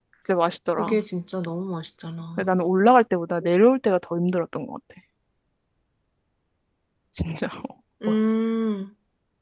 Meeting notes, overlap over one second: none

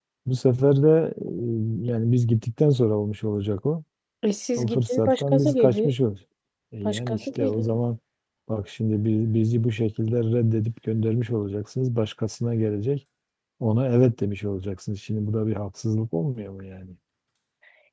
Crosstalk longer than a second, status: present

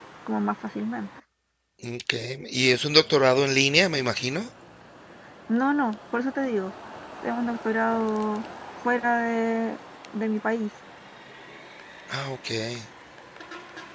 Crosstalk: none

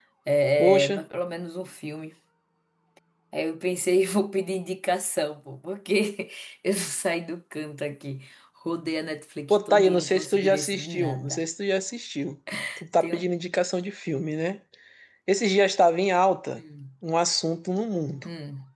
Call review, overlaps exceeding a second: present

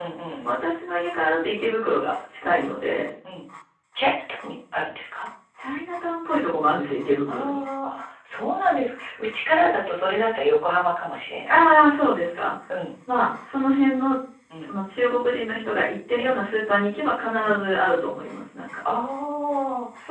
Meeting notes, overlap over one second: none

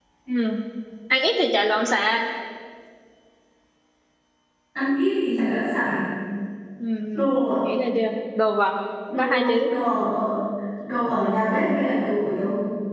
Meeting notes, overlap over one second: none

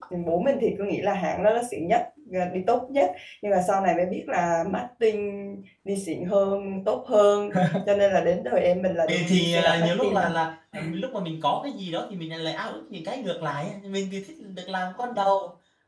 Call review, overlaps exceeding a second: present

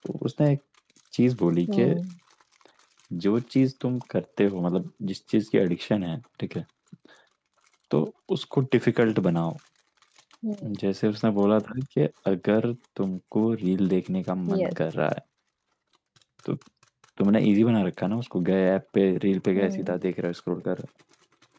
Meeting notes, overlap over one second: none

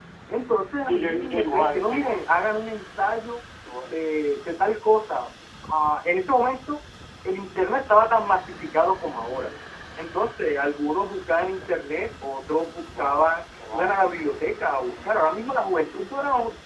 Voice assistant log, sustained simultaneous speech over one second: present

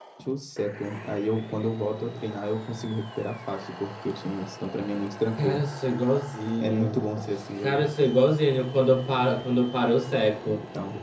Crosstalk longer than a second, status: none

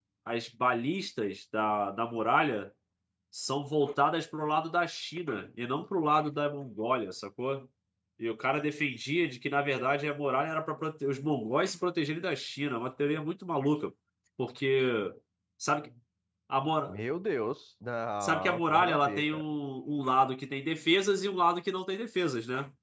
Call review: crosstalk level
present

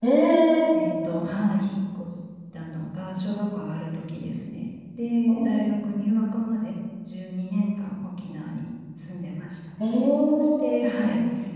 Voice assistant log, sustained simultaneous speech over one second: none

